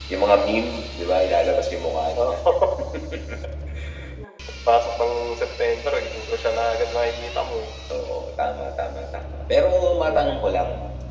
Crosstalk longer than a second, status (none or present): none